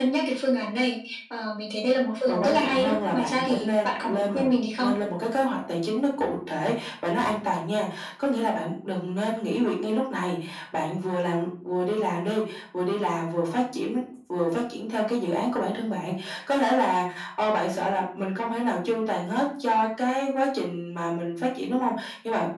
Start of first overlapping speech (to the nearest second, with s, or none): 2 s